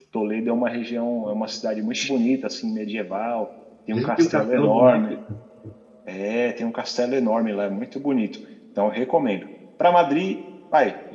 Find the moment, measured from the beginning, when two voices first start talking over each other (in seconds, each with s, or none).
3.9 s